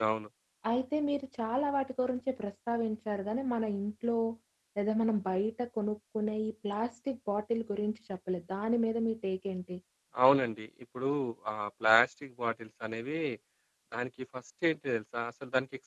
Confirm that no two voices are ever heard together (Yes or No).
Yes